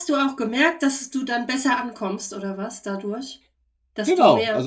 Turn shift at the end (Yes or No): Yes